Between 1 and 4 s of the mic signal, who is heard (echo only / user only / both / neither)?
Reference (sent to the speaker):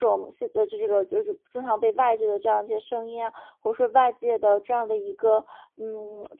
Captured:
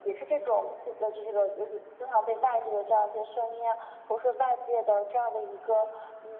echo only